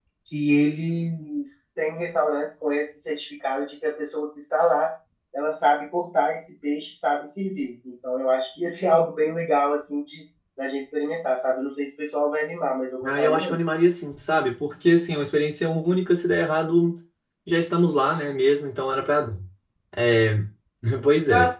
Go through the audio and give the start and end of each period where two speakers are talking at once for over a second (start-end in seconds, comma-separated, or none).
none